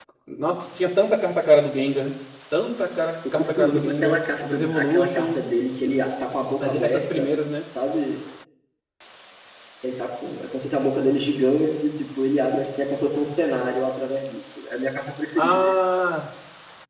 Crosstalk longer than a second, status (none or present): present